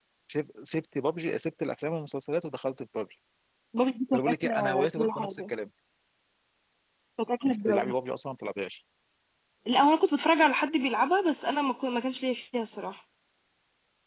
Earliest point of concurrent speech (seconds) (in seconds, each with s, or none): 4.1 s